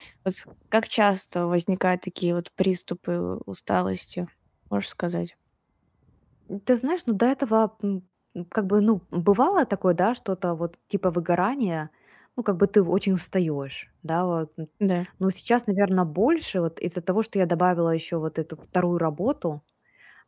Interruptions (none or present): none